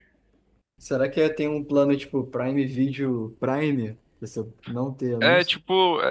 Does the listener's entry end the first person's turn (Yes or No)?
Yes